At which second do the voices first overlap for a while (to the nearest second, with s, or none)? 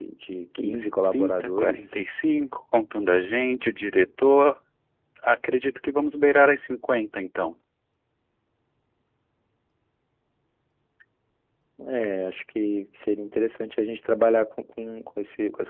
1 s